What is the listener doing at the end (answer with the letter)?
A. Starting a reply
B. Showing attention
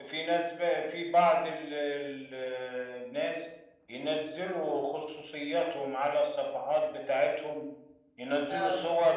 B